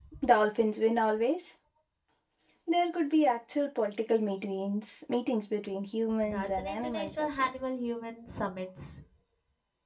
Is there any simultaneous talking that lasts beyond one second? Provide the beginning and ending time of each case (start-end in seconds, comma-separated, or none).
6.3-7.5